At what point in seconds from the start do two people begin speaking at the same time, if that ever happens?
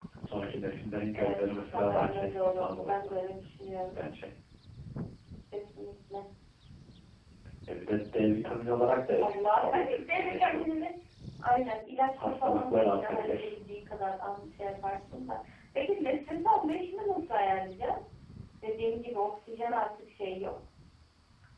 1.2 s

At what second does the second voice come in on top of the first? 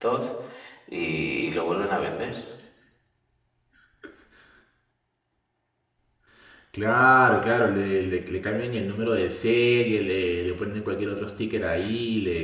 none

